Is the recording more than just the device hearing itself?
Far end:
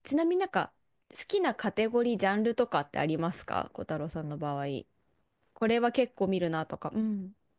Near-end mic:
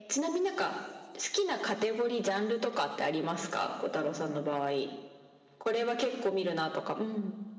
No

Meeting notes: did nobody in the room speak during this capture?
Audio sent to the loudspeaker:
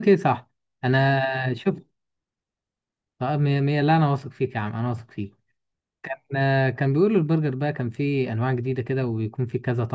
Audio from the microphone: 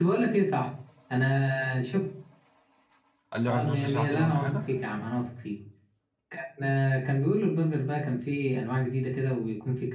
No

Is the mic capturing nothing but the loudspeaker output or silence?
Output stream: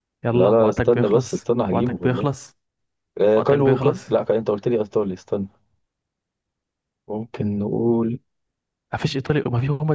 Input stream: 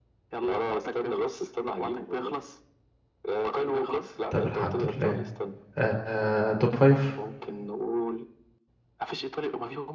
No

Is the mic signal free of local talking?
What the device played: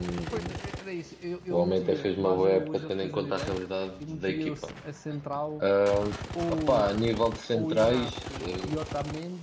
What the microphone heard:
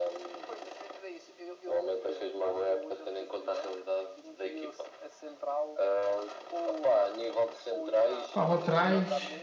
No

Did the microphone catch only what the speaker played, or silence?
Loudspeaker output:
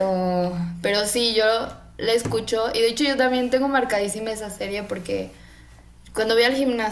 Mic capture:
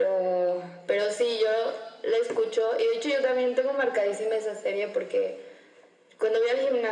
Yes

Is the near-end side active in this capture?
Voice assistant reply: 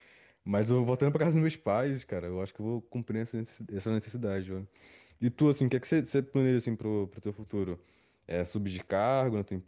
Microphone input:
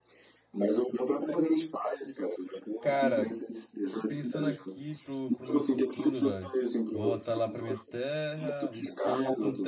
Yes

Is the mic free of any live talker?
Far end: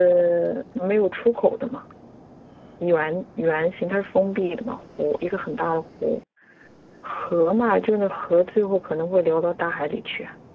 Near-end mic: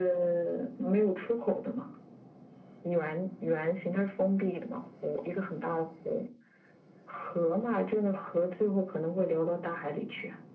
Yes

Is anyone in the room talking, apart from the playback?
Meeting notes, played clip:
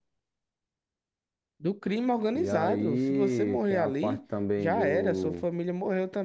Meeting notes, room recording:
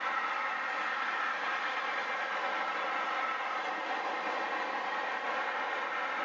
No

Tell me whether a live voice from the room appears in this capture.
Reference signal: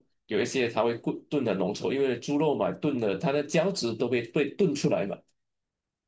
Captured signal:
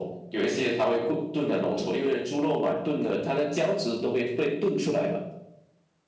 No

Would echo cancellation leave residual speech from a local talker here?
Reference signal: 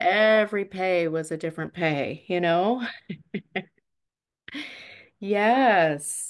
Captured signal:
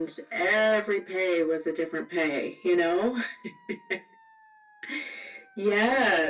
No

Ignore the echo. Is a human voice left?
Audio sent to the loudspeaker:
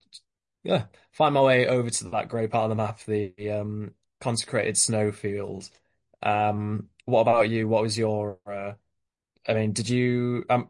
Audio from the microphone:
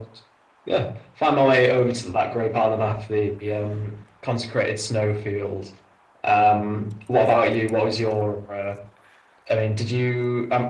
No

